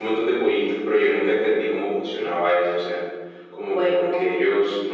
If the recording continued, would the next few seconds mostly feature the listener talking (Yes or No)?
No